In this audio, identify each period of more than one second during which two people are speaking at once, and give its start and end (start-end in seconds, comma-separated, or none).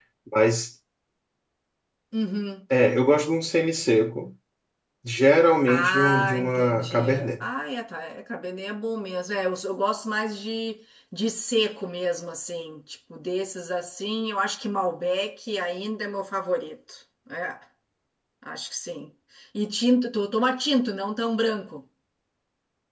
5.7-7.5